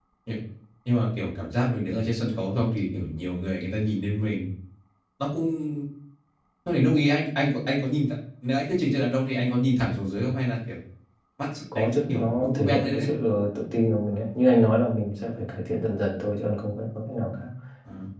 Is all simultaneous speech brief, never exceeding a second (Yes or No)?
No